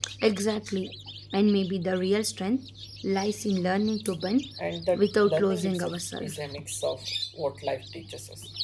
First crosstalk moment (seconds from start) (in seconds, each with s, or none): 4.9 s